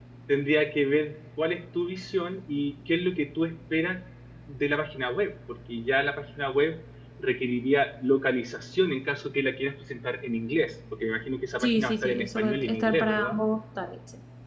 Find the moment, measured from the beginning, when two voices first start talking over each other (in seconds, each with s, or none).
11.6 s